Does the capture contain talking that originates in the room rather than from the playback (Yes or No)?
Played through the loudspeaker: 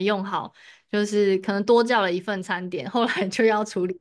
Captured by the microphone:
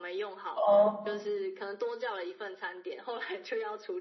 Yes